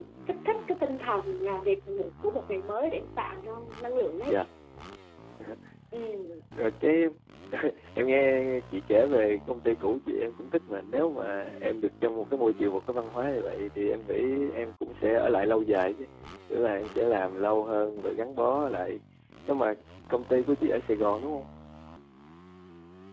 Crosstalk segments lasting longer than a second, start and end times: none

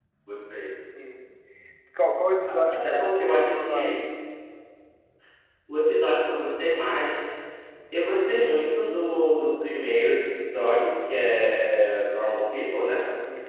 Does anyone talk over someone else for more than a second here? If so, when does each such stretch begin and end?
2.5-4.1

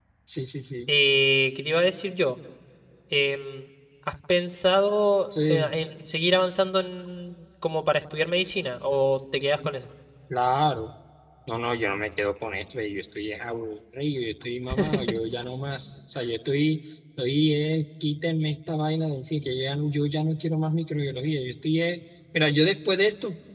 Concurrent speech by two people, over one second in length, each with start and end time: none

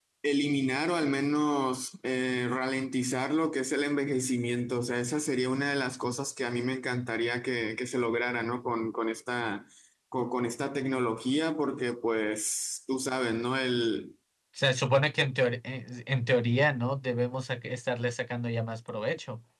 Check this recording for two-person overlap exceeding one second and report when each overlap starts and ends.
none

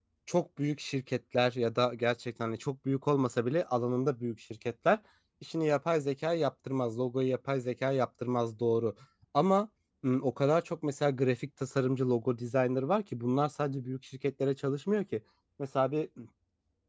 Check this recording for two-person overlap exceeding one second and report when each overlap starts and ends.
none

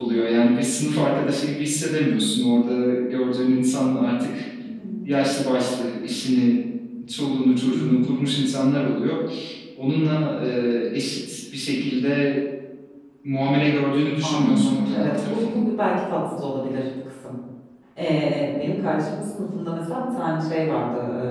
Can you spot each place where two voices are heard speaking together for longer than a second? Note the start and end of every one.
14.2-15.6

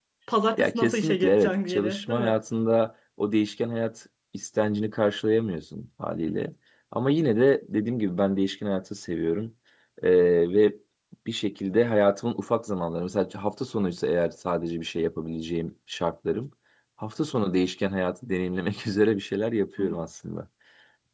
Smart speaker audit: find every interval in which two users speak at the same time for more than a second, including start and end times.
0.6-2.3

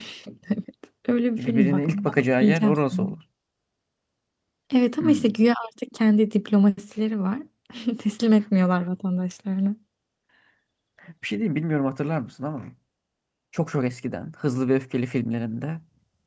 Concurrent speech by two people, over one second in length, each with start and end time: 1.4-3.1

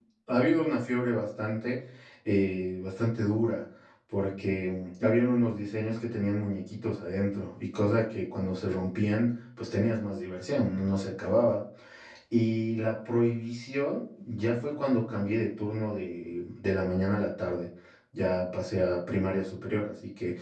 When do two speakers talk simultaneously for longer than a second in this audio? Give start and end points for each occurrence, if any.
none

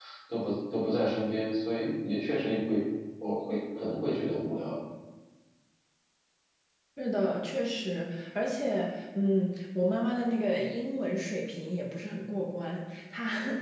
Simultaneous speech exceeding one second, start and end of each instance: none

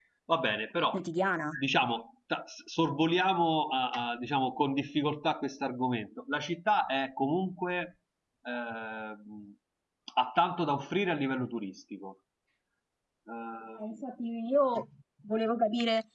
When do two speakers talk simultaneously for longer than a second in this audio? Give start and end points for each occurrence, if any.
none

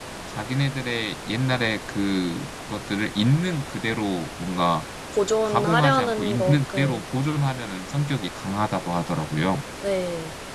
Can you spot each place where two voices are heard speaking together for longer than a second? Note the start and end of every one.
5.5-7.0

